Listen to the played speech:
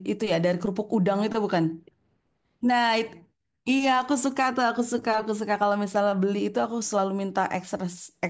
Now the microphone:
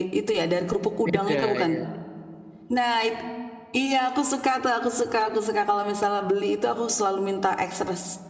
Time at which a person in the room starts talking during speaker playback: 1.0 s

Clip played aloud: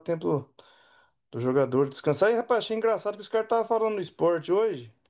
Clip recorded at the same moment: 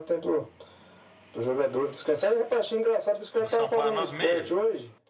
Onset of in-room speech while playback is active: 3.4 s

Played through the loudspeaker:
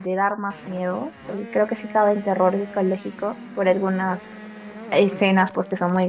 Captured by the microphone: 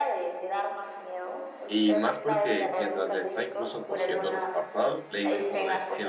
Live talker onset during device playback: 1.6 s

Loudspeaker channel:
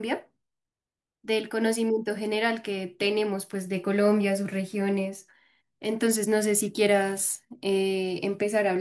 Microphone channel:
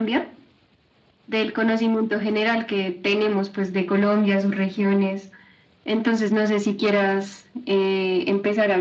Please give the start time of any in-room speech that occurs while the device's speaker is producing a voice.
none

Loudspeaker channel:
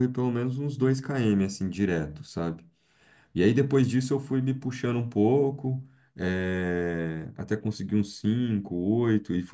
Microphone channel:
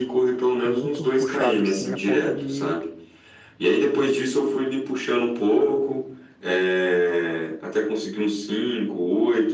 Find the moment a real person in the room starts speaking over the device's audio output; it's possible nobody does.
0.6 s

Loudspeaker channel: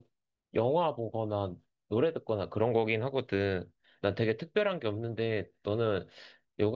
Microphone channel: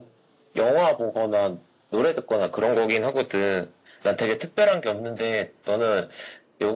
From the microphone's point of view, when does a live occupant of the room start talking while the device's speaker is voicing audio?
none

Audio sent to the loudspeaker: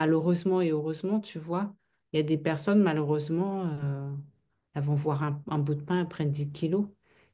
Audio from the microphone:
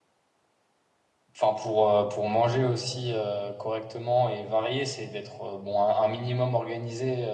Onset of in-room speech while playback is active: 1.4 s

